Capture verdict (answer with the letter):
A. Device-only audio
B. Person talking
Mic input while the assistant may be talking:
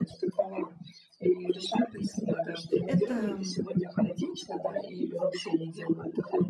B